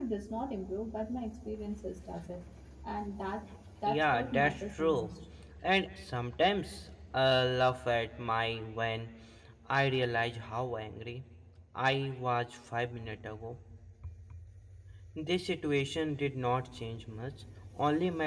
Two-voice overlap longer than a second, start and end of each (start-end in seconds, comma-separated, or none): 3.9-5.1